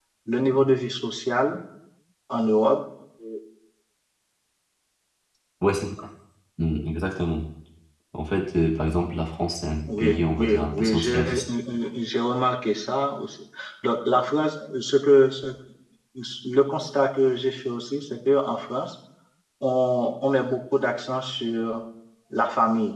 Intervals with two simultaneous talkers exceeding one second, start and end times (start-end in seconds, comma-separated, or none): 10.0-11.4